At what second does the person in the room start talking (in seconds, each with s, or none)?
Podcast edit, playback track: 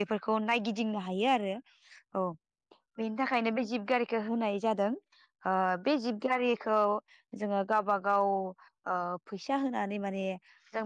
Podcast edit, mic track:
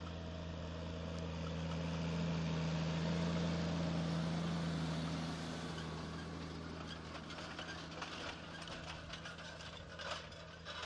none